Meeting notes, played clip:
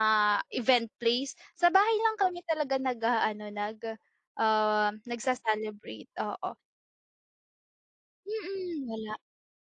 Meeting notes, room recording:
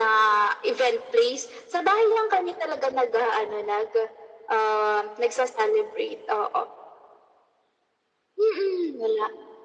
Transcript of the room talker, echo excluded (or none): none